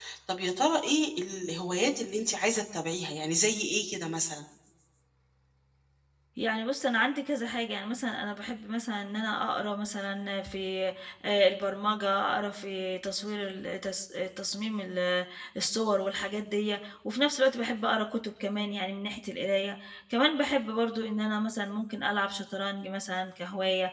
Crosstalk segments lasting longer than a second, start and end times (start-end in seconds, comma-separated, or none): none